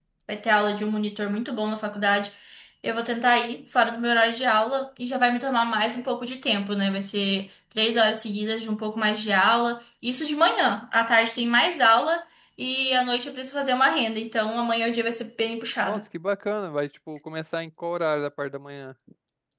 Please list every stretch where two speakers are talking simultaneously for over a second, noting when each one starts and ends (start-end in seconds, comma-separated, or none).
none